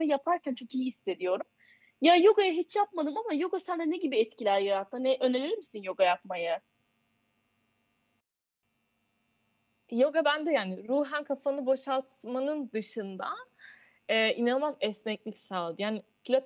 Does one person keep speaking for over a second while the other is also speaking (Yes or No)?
No